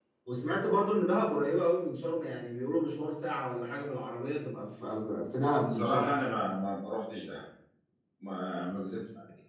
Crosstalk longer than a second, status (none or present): none